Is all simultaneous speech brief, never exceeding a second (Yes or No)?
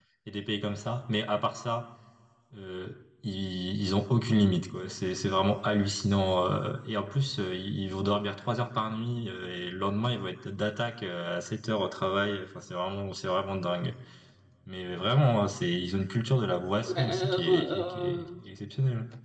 No